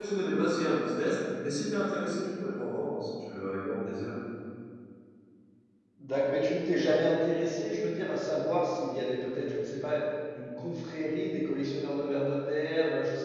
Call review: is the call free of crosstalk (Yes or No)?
Yes